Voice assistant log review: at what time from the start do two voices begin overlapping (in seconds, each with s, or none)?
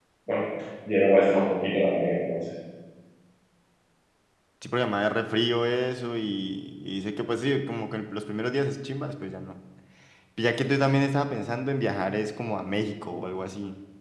none